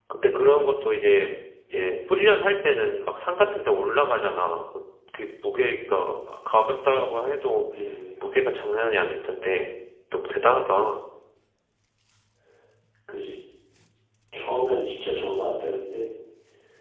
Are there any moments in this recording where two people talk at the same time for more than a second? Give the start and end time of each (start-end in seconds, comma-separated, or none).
none